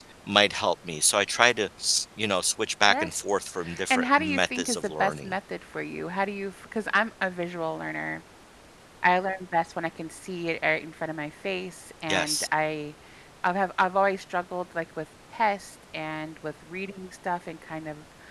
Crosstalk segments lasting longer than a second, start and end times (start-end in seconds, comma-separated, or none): 3.9-5.3